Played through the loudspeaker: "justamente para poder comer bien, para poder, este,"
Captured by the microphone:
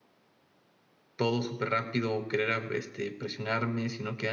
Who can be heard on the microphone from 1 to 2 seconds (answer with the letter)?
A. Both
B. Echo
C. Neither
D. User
D